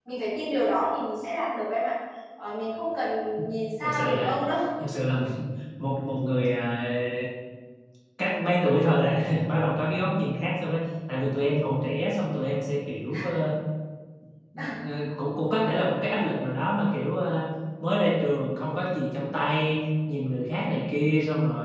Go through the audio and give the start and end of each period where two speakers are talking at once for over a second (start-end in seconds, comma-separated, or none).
none